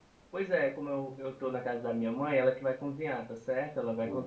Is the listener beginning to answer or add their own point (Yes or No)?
No